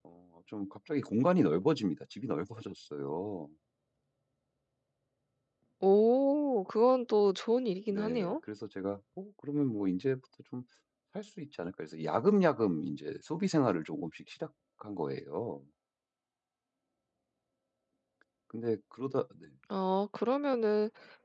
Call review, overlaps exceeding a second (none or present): none